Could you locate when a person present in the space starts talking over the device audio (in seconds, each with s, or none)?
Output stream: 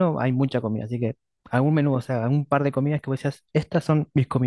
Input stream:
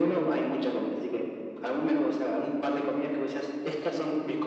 none